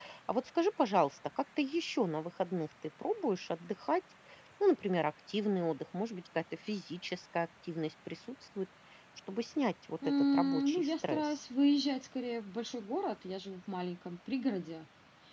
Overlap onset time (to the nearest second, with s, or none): 10 s